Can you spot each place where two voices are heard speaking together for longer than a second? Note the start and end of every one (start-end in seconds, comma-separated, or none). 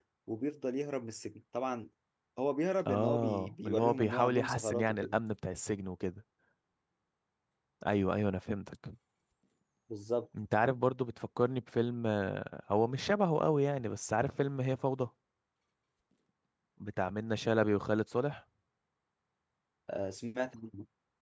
2.8-5.2